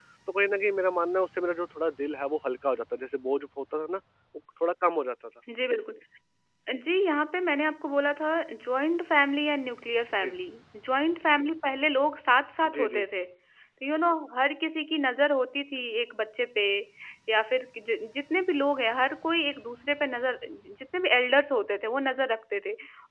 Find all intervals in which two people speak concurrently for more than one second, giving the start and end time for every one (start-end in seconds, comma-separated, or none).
none